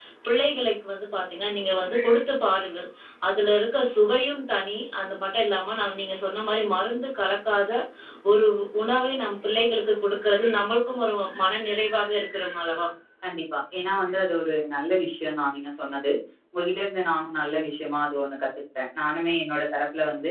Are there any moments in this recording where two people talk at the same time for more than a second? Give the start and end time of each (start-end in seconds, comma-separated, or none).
none